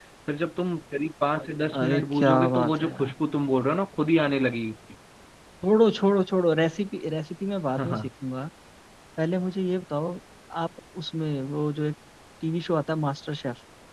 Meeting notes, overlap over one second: present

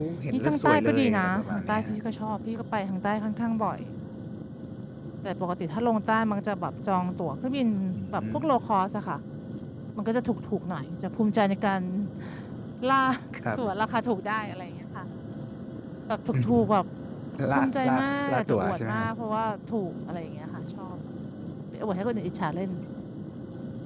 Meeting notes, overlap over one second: present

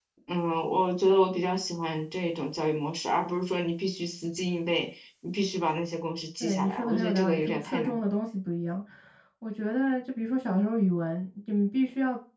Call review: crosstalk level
present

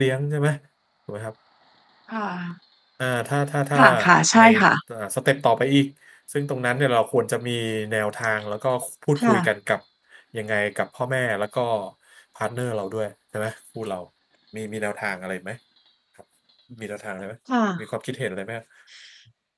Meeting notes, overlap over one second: none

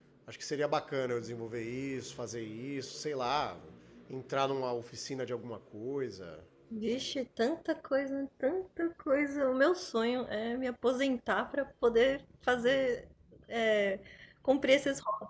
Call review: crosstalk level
none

